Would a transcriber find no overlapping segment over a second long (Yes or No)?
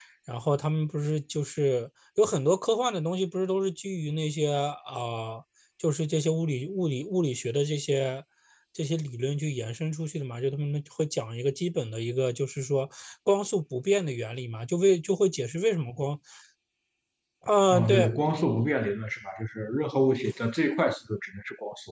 Yes